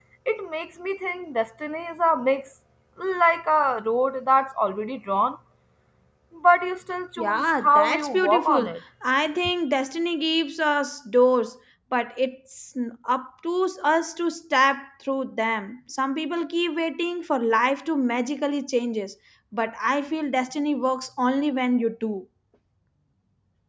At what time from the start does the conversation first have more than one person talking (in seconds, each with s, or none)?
7.2 s